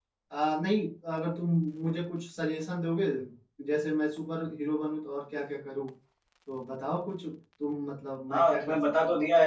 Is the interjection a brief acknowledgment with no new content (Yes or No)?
No